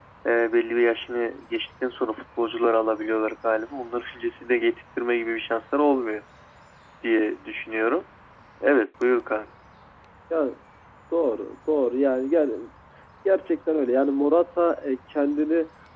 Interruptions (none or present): none